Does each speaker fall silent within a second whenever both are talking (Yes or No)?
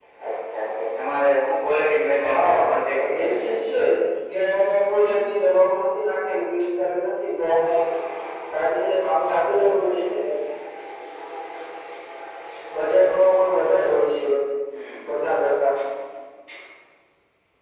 No